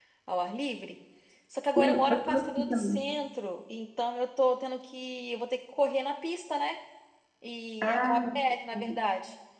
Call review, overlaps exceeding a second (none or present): present